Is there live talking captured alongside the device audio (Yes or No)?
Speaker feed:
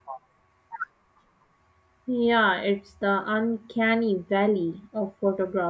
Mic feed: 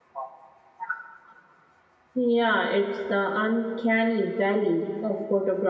No